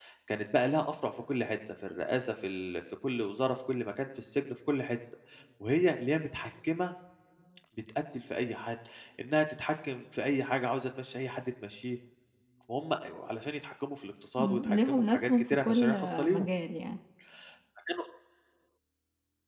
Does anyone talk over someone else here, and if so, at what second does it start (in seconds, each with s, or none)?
14.4 s